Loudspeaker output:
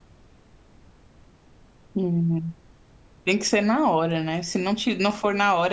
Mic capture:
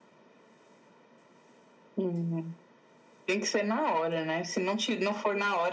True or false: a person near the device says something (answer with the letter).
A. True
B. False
B